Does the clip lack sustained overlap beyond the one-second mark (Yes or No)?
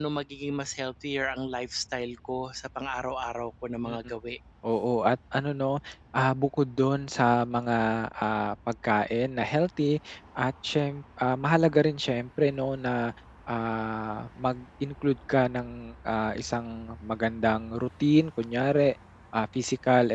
Yes